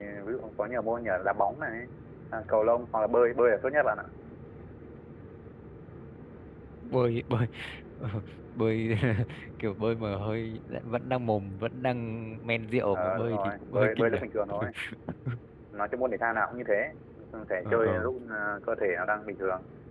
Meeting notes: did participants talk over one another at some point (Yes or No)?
Yes